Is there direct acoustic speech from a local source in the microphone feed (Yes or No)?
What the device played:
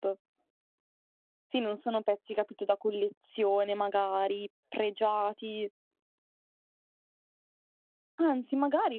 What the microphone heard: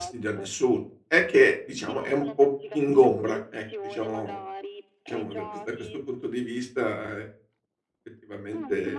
Yes